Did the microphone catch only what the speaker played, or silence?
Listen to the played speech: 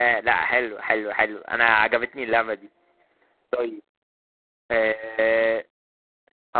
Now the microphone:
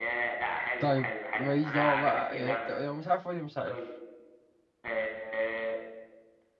No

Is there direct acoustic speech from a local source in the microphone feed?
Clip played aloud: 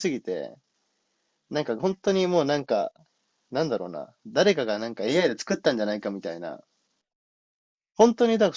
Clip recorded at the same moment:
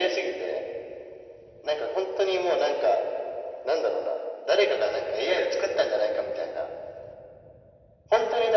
No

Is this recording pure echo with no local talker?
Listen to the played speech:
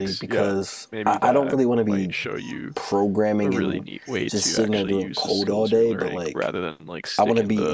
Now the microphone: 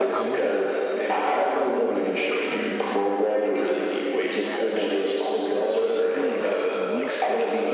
No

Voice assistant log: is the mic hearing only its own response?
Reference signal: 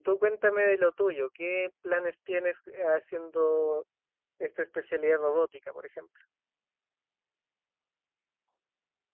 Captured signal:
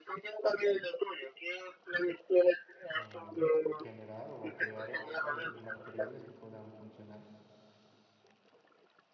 No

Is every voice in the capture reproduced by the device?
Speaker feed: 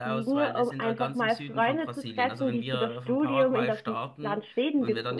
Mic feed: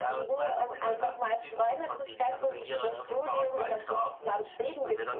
Yes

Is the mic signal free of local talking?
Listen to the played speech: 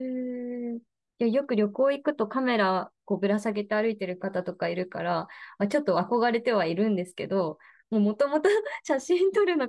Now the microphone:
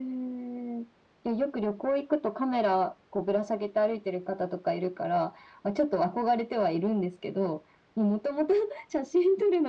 Yes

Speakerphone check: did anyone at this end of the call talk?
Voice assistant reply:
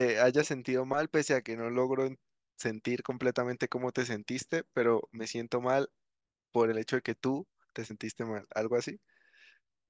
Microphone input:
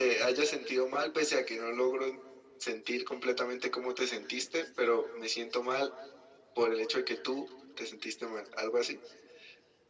No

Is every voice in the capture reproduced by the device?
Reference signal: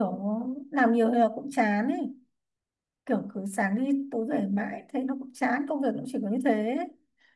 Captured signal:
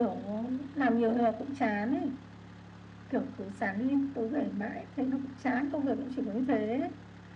Yes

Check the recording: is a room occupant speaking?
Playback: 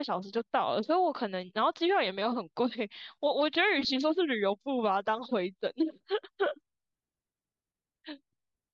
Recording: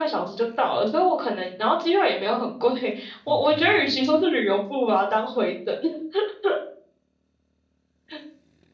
Yes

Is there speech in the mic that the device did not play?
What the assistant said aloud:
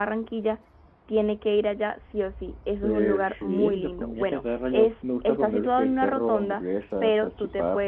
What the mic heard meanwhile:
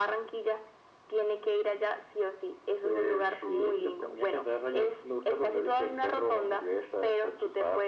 No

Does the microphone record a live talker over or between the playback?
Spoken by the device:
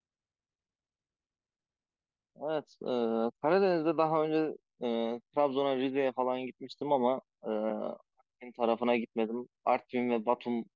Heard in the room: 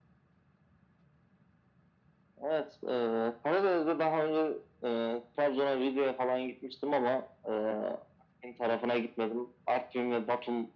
No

